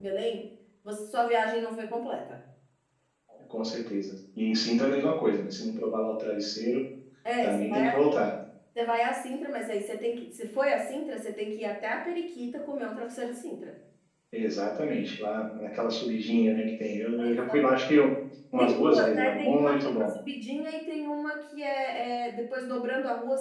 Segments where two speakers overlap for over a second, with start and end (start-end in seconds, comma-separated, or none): 18.6-20.1